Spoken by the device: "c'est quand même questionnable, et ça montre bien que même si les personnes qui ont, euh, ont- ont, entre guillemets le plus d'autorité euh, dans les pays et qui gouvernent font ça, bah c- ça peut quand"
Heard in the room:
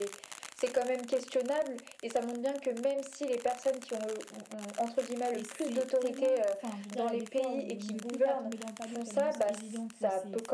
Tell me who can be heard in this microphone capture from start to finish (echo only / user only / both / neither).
both